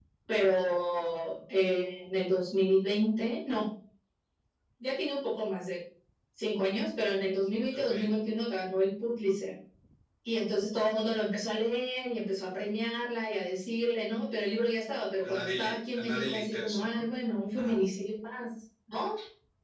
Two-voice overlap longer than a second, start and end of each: 15.2-17.0

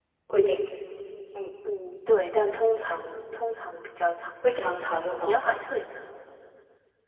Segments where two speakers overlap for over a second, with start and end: none

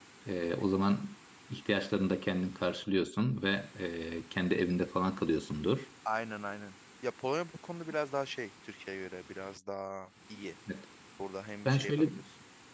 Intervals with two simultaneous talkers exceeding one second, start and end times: none

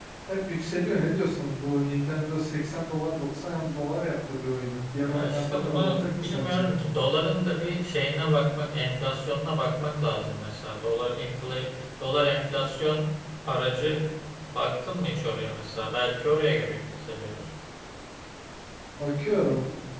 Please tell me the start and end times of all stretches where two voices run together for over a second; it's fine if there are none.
5.0-6.7

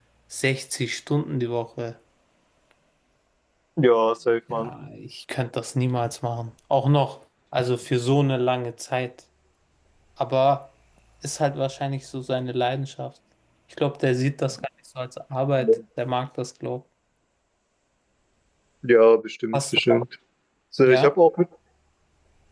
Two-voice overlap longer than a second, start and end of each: none

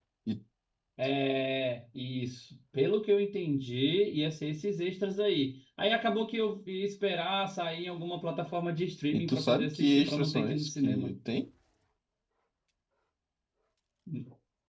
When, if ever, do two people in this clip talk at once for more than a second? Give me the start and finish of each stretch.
9.1-11.1

